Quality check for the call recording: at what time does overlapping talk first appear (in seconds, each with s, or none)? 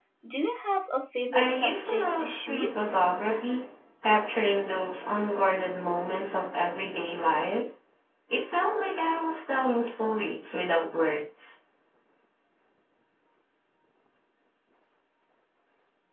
1.3 s